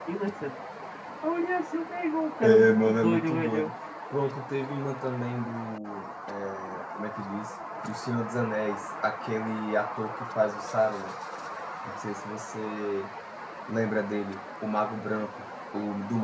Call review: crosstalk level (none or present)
present